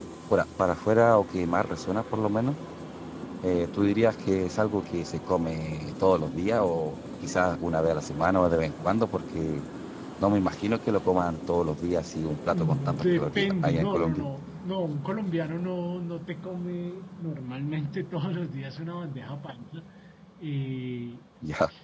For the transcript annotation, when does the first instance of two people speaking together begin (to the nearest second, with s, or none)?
13 s